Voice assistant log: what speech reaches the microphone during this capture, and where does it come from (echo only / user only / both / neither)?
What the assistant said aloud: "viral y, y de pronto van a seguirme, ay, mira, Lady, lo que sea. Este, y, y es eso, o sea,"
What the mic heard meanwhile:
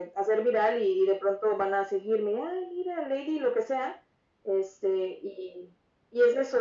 echo only